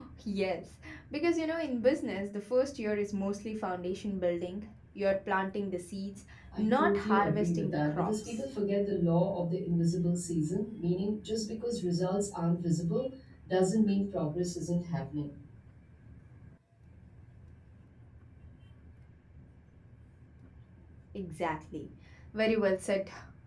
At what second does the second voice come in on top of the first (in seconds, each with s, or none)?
6.4 s